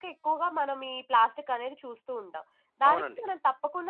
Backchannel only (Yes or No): Yes